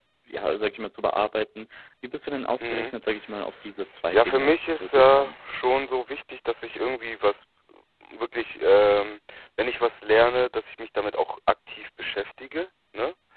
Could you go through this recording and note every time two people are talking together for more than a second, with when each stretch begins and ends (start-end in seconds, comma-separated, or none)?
4.1-5.4